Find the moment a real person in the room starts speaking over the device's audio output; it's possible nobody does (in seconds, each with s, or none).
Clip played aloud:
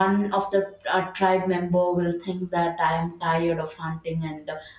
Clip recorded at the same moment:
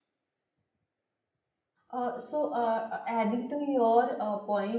1.9 s